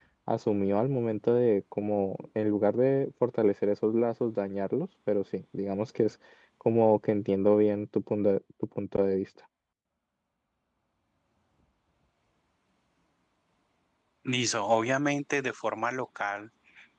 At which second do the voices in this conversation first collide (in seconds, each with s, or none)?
none